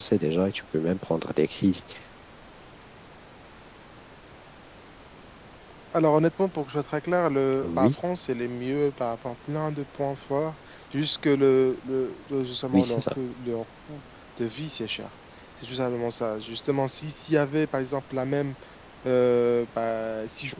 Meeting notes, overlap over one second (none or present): none